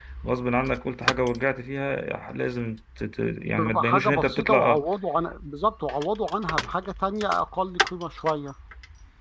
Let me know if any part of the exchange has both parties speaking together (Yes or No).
Yes